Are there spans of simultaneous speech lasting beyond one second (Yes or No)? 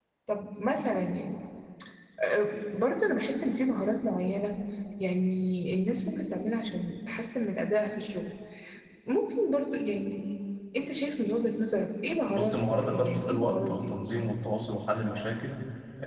Yes